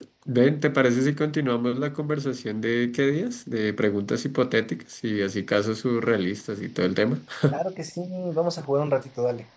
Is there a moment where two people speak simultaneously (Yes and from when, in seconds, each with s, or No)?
No